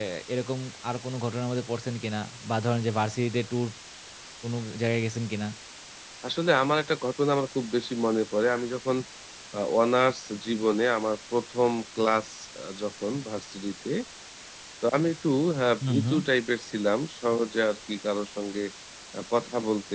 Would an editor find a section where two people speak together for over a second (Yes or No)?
No